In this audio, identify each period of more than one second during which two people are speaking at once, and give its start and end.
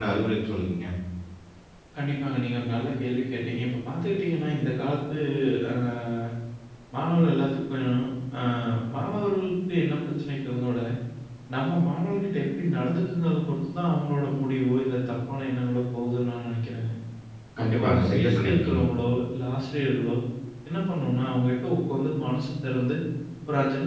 17.6-18.8

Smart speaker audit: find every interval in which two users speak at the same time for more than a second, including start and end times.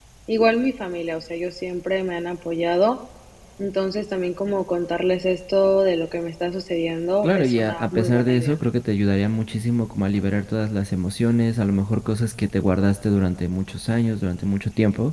7.2-8.5

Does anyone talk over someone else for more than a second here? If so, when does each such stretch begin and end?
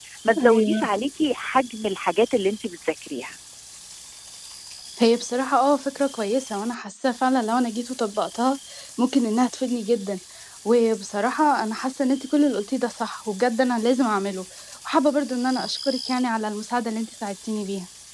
none

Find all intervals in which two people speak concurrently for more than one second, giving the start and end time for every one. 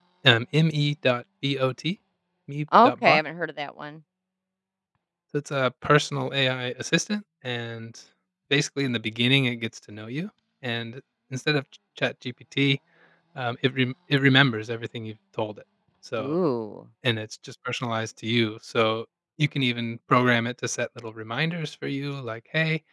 none

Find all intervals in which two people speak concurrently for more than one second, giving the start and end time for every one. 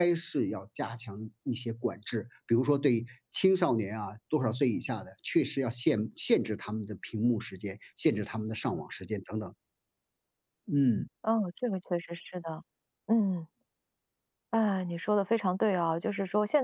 none

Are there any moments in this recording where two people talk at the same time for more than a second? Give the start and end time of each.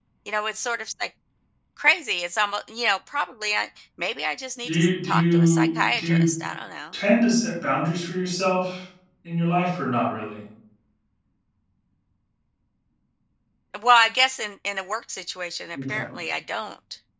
4.7-6.3

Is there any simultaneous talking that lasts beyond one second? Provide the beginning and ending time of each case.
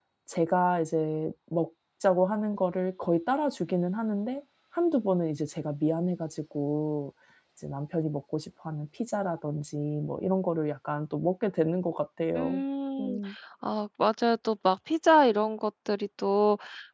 none

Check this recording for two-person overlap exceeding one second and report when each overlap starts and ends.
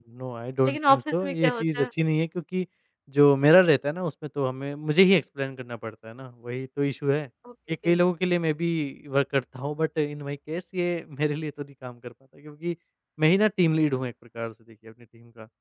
0.7-1.9

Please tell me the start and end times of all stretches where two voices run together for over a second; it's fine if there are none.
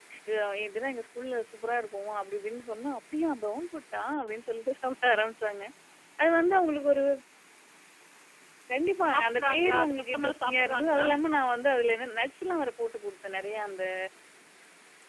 9.1-11.1

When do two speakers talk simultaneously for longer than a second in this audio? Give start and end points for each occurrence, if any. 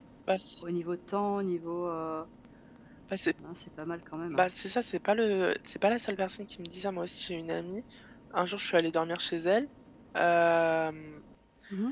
none

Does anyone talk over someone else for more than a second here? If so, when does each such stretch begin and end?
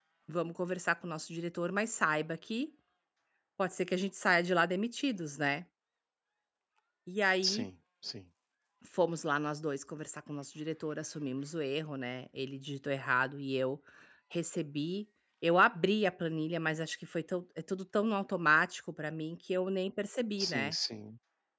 none

